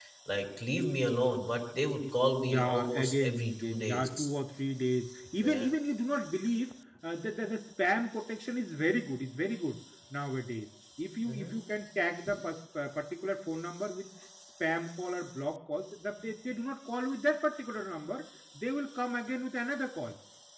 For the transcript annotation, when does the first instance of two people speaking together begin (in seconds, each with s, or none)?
2.4 s